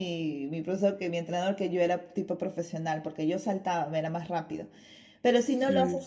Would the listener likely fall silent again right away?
Yes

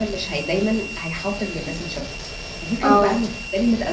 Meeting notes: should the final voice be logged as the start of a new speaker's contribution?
No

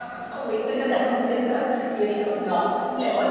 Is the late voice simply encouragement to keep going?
Yes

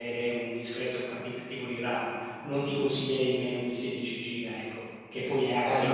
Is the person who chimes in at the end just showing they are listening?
No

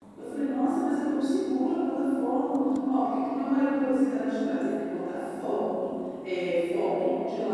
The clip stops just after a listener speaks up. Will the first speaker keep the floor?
Yes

